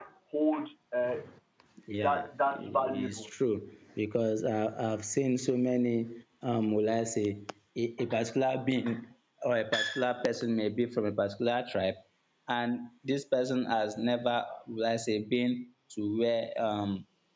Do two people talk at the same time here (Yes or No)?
Yes